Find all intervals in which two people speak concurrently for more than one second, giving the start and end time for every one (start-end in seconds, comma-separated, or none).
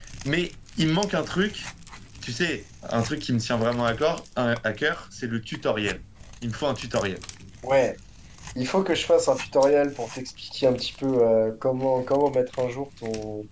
none